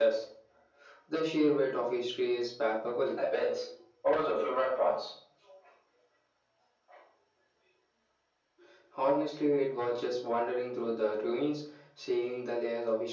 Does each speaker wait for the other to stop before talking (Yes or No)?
Yes